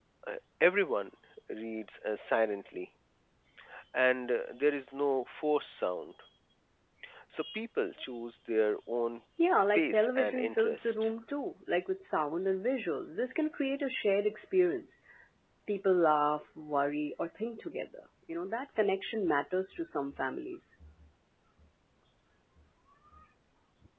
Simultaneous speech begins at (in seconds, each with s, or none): 9.7 s